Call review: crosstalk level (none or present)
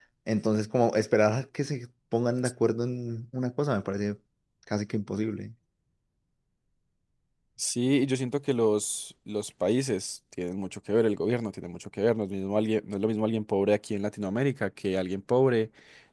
none